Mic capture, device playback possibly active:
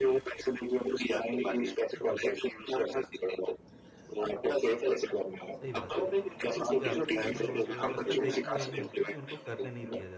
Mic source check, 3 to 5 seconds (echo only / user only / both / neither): echo only